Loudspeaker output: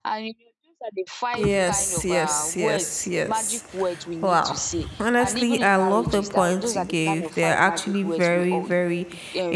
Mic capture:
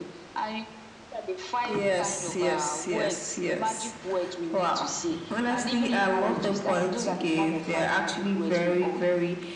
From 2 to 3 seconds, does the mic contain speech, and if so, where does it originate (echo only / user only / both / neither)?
echo only